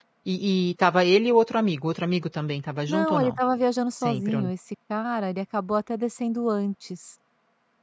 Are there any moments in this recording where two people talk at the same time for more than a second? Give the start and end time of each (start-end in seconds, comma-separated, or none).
none